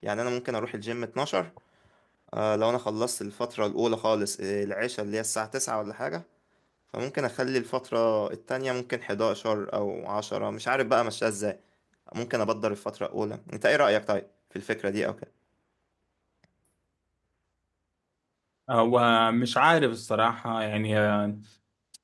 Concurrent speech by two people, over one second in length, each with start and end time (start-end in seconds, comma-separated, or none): none